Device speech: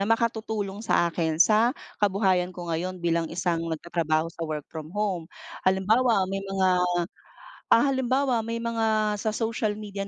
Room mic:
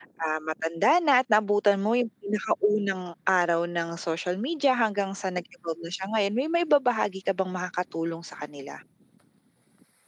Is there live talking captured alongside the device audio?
Yes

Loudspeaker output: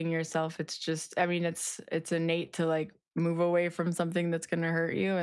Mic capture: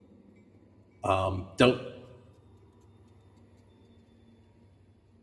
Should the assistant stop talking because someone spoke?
Yes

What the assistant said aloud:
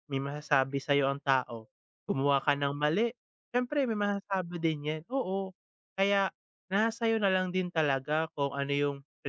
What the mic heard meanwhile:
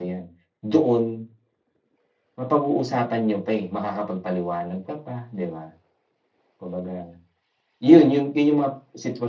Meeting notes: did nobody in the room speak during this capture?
No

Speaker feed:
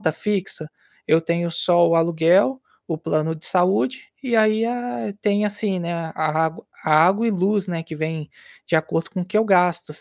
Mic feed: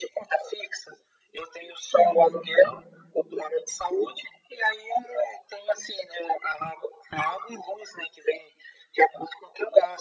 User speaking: Yes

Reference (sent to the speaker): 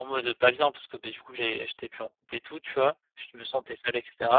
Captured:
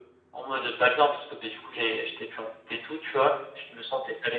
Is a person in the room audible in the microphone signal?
No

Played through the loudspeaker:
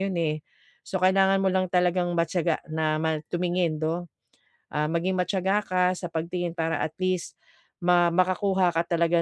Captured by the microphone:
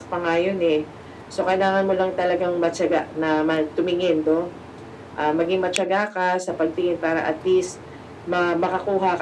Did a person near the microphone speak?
No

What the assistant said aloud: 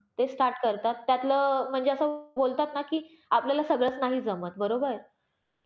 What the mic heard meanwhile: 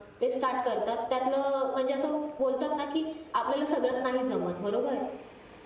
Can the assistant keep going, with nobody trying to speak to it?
Yes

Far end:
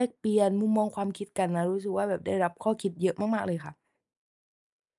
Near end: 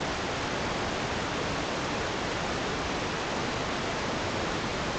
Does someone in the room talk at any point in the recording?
No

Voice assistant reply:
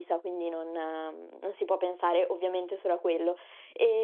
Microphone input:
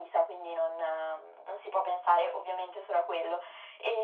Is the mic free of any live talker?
Yes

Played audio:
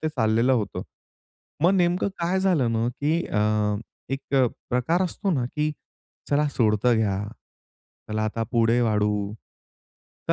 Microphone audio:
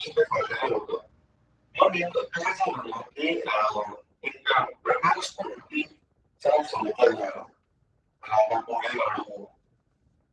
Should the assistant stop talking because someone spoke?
No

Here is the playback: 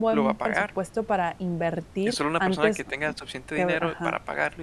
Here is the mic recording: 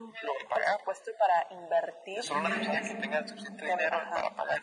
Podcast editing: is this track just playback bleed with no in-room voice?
No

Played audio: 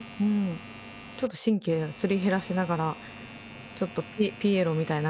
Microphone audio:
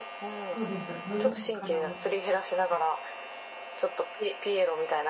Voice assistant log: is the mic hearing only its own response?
No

